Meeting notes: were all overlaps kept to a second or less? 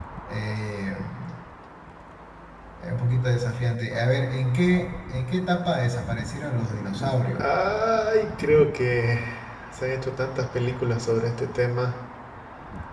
Yes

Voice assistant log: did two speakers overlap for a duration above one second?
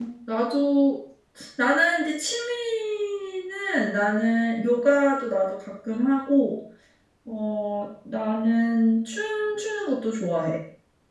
No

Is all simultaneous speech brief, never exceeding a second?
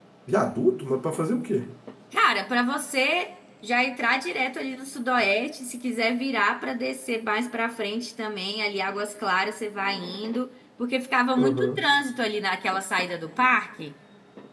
Yes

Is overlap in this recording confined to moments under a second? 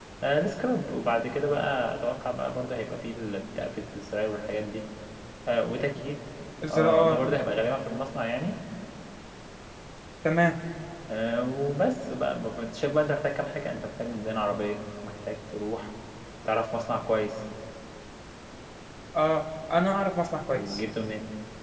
Yes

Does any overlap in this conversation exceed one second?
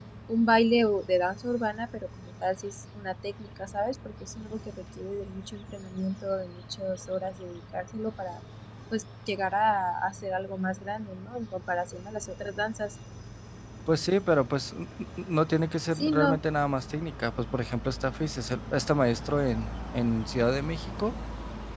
No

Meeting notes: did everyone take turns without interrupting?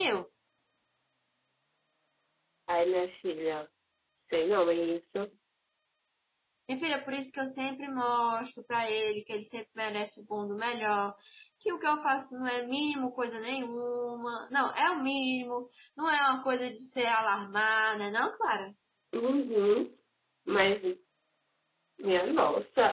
Yes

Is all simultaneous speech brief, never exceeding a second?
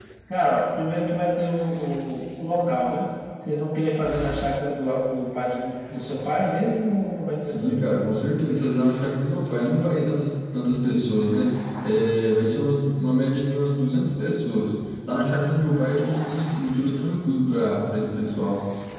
Yes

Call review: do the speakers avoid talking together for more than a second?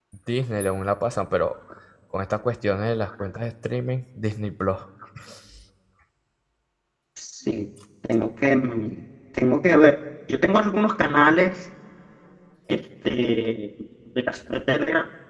Yes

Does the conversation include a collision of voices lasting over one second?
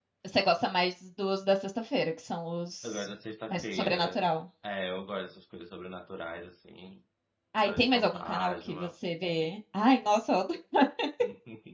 Yes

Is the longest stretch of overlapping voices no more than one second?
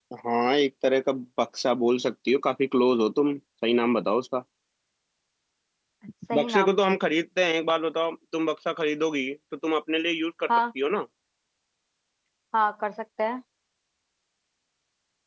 Yes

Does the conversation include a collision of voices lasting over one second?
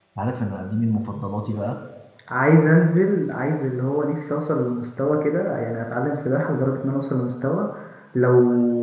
No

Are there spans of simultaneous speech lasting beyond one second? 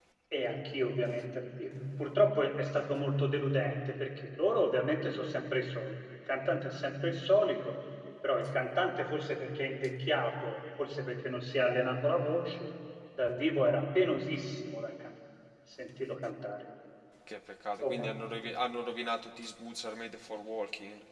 No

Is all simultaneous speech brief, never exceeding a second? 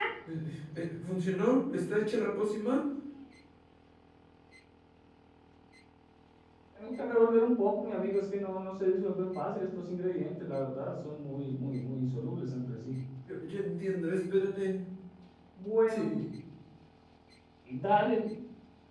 Yes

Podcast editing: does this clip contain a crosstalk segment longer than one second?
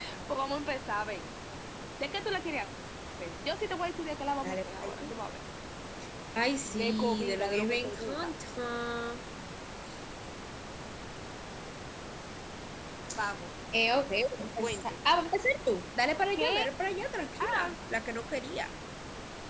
Yes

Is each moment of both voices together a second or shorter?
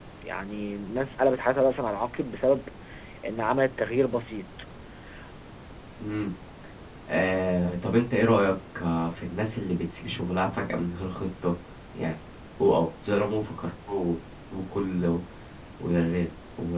Yes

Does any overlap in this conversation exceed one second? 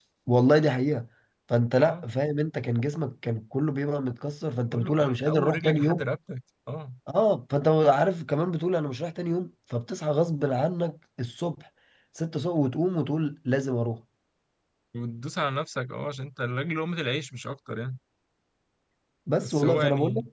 Yes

